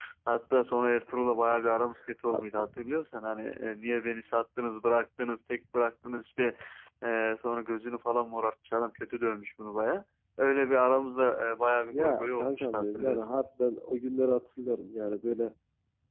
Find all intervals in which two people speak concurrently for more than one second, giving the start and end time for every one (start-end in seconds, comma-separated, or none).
11.9-13.3